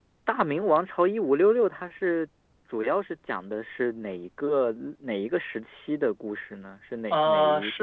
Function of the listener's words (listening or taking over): taking over